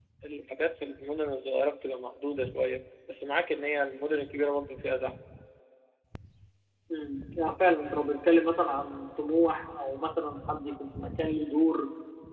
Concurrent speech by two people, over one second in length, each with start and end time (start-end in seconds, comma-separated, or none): none